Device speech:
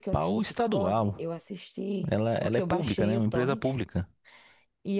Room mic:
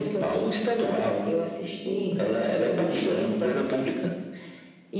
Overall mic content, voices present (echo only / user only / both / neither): echo only